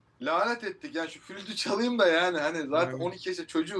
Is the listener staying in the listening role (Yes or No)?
Yes